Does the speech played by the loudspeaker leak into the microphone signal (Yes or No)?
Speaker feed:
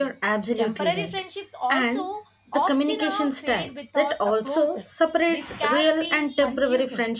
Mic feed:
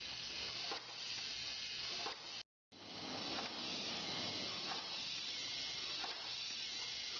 No